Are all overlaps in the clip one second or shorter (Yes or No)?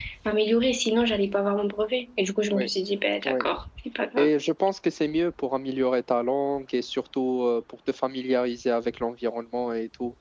Yes